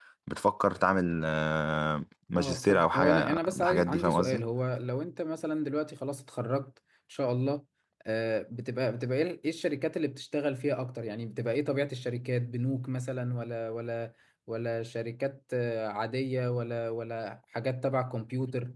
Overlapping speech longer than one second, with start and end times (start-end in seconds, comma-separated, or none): 2.4-4.4